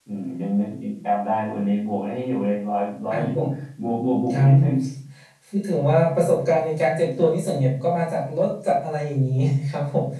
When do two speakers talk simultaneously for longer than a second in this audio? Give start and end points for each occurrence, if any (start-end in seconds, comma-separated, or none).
none